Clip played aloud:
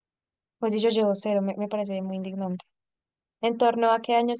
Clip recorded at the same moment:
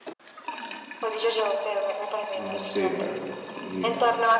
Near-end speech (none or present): present